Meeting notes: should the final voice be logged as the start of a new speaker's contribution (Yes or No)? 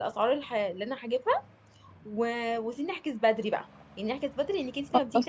No